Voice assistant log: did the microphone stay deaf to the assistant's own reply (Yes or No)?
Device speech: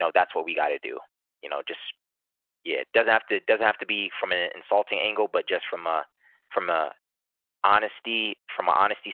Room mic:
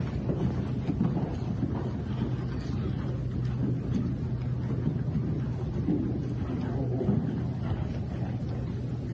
Yes